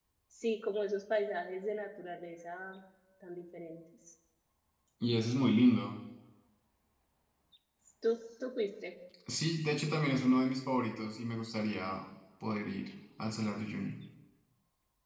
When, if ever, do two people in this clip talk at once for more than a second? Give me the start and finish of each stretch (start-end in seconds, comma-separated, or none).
none